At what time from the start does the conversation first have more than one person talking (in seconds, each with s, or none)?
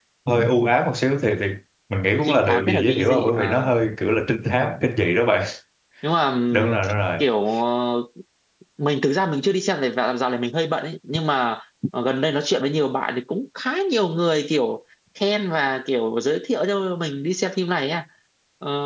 2.2 s